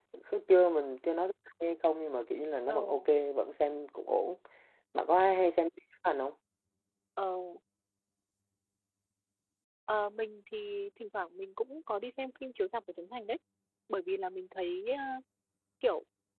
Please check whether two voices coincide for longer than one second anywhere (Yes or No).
No